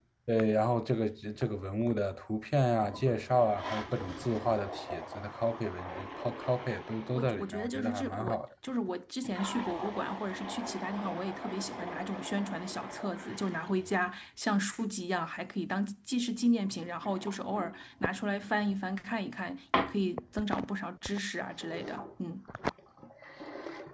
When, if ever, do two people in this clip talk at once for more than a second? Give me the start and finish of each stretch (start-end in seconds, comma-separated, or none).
7.1-8.4